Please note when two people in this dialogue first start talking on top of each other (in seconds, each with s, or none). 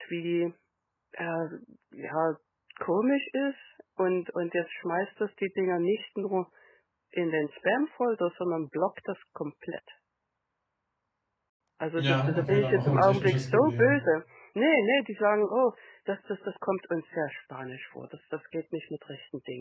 12.0 s